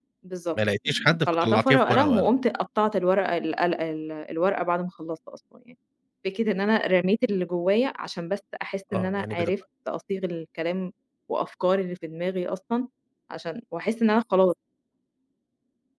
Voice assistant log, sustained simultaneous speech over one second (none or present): present